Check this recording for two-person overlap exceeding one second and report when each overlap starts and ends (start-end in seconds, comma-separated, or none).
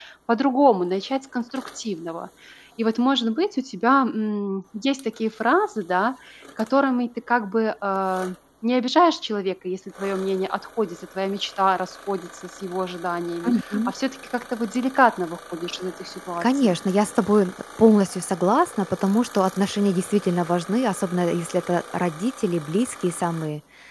none